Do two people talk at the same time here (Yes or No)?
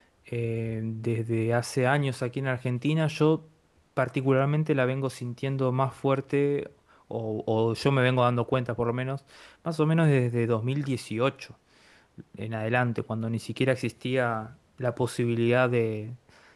No